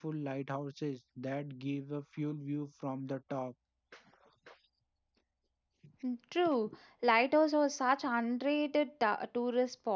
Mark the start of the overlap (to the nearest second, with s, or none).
none